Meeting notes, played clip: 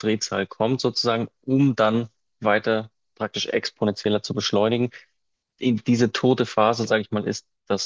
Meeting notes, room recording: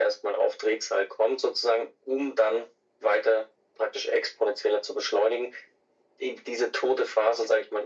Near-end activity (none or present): none